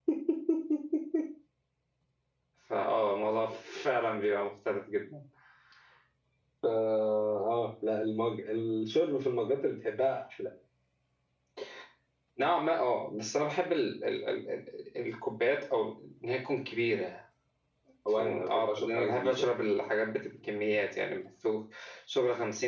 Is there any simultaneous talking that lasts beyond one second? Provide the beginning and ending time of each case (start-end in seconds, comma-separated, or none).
18.1-19.4